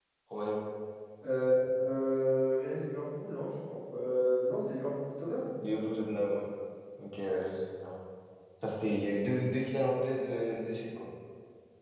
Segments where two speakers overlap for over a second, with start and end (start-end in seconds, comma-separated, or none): none